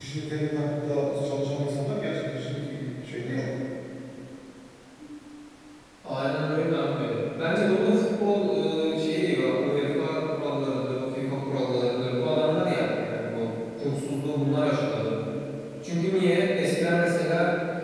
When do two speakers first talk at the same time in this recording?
none

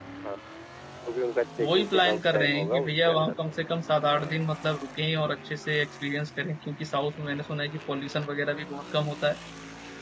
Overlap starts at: 1.6 s

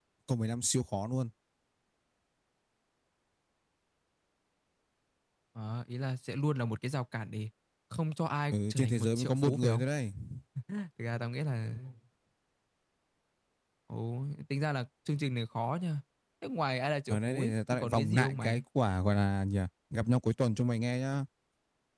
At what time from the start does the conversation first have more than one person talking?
8.5 s

